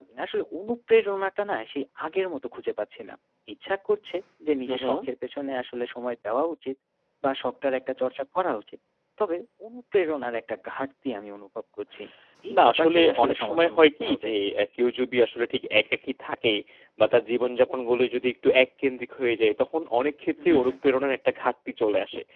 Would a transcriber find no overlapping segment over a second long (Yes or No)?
No